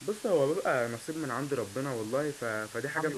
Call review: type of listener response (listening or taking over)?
listening